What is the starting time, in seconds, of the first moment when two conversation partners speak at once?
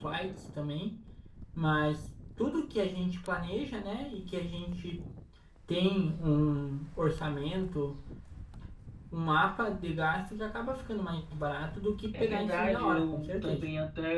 12.1 s

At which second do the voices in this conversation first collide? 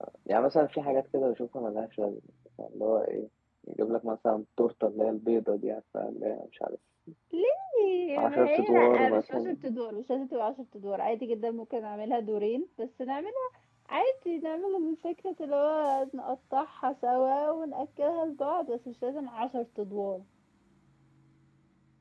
8.2 s

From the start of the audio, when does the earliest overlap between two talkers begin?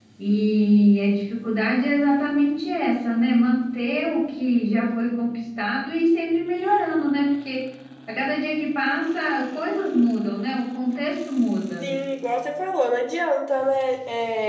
none

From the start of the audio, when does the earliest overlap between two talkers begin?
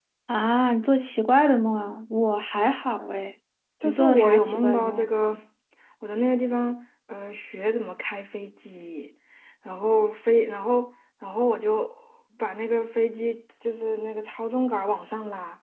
3.8 s

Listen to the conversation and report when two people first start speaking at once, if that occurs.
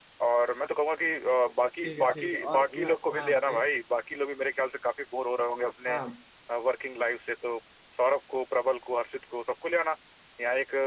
1.8 s

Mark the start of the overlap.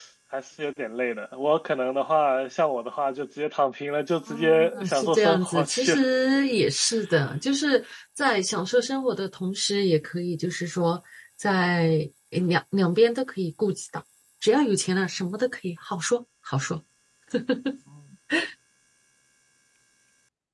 4.3 s

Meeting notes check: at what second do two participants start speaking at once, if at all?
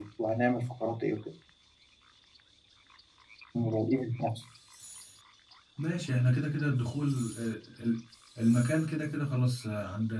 none

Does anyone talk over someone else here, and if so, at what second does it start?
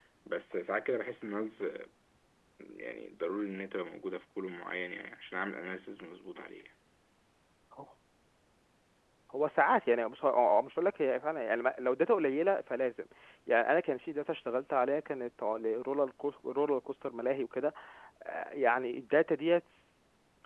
none

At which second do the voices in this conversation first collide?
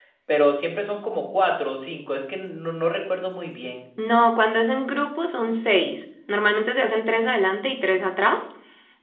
none

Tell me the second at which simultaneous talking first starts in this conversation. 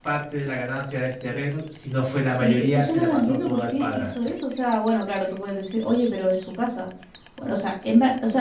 2.4 s

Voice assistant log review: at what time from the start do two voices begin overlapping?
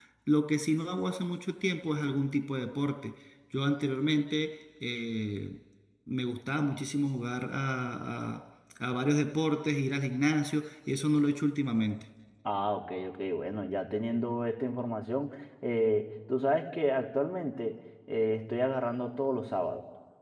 none

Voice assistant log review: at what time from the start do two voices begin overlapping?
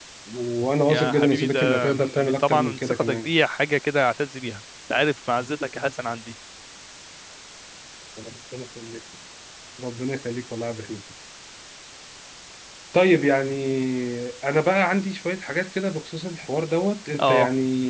0.8 s

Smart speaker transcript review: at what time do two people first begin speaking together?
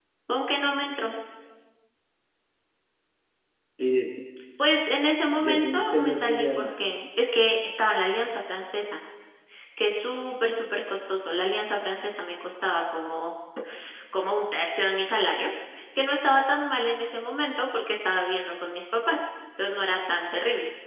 5.4 s

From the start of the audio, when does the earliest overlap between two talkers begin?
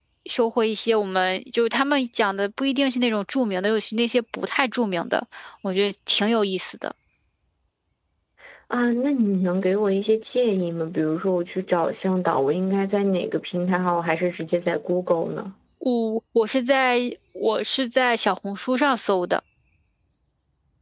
none

